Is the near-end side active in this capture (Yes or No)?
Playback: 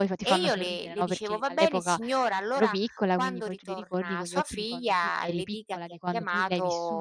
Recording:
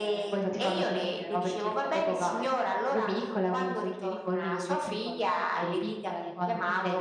No